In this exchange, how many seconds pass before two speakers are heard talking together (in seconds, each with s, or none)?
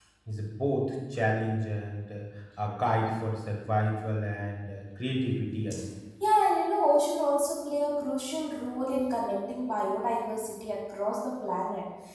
none